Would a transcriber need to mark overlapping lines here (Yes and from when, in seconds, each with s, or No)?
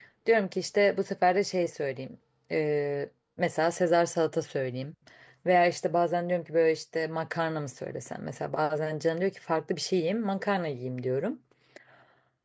No